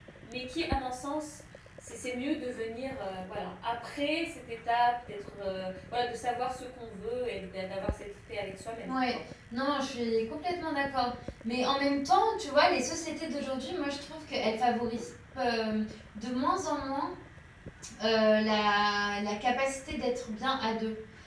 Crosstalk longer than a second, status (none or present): none